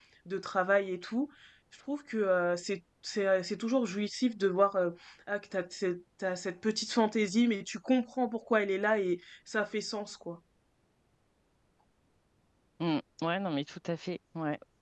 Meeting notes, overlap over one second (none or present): none